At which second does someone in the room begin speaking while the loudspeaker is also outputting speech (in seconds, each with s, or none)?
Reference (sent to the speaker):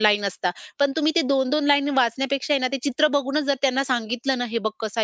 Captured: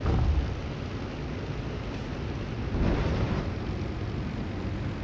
none